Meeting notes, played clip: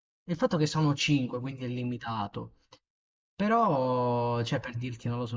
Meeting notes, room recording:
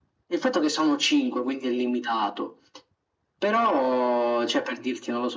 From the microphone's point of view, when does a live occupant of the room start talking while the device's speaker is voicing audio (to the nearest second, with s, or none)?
none